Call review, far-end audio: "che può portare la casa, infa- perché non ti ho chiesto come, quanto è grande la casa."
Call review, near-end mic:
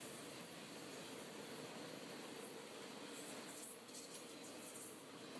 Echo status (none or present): none